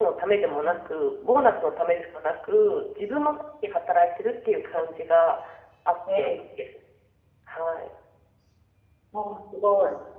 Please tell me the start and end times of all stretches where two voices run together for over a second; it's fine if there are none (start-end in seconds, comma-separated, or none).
none